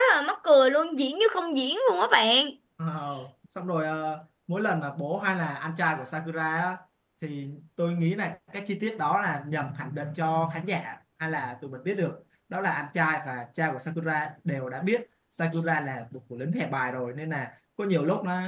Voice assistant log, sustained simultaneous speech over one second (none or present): none